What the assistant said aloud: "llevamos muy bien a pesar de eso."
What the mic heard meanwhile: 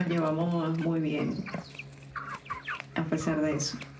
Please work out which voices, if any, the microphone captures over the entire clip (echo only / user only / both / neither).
echo only